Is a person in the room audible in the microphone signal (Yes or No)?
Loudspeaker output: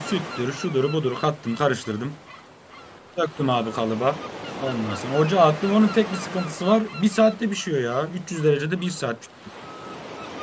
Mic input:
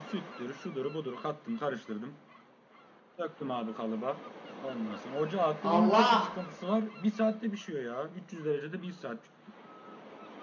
Yes